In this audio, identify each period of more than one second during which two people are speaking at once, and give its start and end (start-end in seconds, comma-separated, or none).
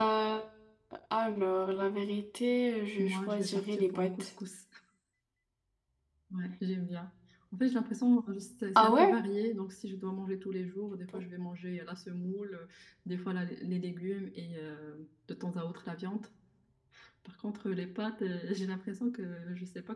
3.0-4.3